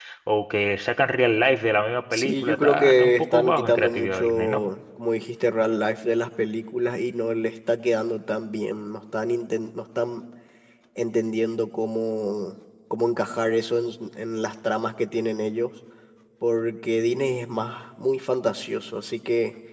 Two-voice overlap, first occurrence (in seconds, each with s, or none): 2.1 s